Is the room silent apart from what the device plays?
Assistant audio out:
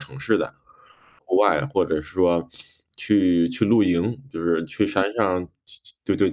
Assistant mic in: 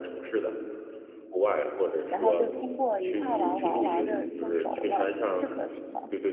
No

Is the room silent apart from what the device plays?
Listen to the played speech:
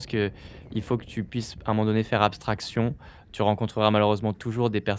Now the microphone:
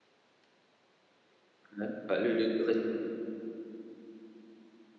No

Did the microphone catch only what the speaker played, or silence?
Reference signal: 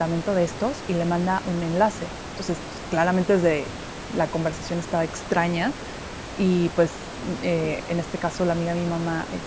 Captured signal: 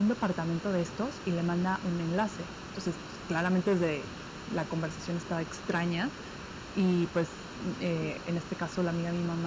Yes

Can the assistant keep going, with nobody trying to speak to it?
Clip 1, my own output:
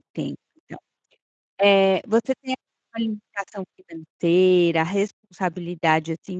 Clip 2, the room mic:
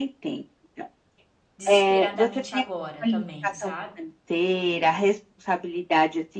No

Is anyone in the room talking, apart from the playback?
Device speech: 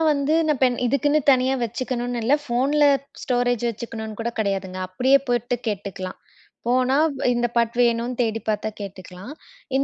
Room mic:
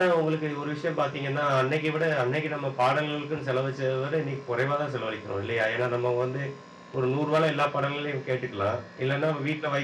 Yes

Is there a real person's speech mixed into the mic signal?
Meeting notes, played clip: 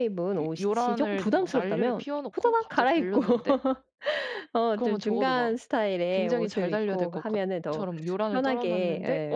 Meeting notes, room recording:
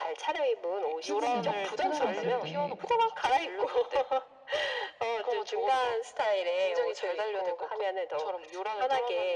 Yes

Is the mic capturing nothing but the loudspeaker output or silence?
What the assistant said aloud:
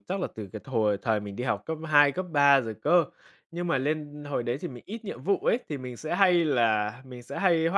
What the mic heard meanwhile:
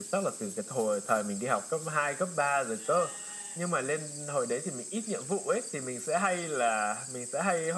Yes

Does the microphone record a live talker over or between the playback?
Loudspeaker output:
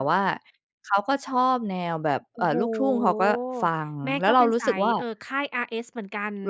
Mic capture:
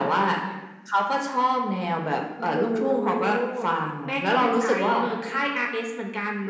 No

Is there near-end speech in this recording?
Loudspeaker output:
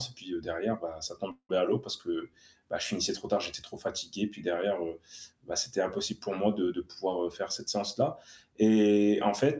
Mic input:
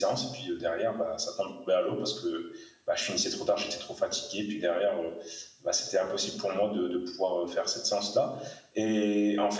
No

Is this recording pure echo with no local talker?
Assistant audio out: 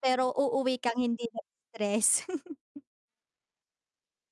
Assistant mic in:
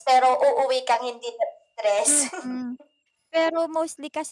No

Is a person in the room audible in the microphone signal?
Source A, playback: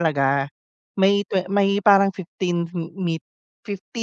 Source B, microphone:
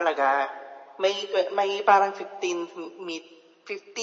No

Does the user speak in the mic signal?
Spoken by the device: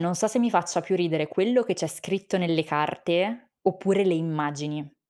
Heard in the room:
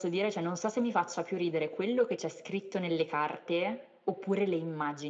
No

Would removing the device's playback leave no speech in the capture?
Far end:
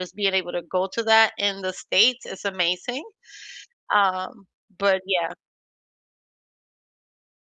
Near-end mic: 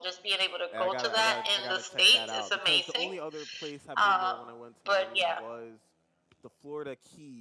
No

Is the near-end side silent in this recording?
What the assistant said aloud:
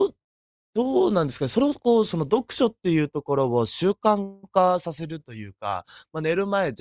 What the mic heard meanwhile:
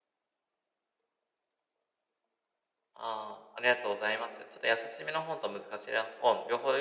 No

